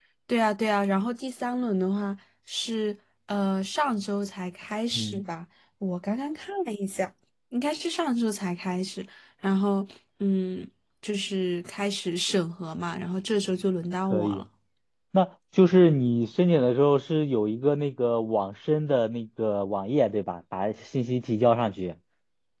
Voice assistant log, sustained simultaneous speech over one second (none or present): none